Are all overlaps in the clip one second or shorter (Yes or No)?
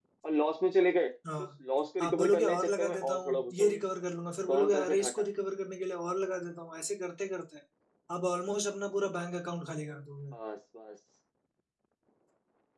No